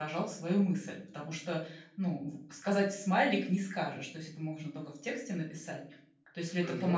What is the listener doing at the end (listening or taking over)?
listening